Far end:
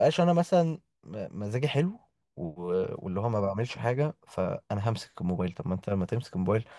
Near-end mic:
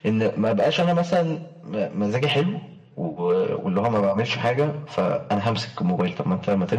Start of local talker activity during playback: none

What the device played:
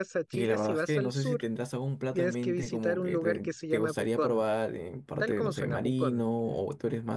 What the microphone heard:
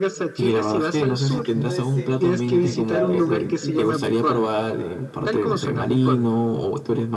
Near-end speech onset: 1.5 s

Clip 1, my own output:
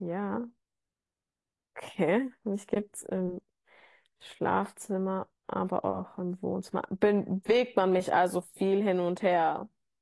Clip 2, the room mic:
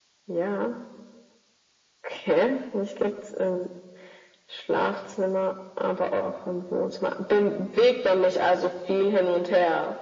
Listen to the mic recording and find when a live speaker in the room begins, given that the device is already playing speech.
none

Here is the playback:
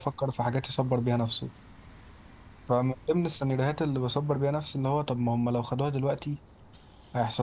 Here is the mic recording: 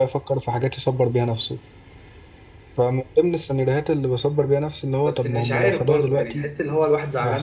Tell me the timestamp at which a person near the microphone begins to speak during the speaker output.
5.0 s

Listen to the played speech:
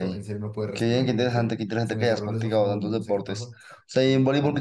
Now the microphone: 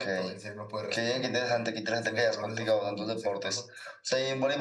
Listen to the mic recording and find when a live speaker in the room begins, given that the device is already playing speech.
none

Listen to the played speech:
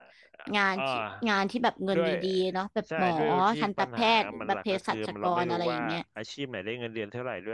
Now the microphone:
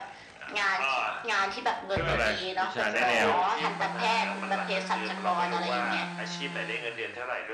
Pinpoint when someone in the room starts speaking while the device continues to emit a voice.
2.0 s

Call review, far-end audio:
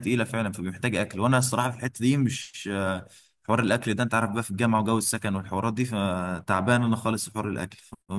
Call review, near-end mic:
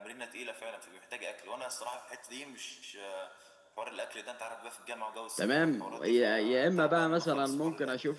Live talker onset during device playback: 5.4 s

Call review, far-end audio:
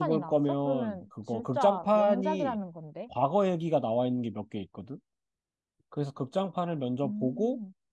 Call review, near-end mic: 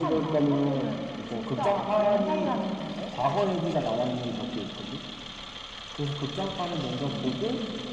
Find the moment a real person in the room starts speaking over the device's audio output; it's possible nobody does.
none

